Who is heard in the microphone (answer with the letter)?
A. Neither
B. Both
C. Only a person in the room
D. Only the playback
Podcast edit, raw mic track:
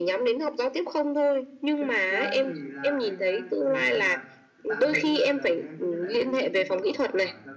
B